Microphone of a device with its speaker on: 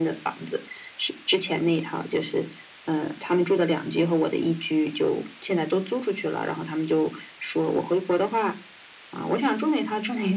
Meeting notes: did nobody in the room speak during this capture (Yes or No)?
Yes